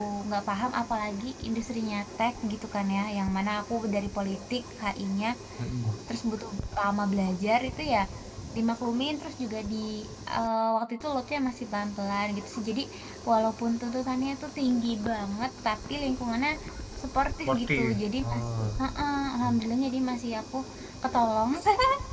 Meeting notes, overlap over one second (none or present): present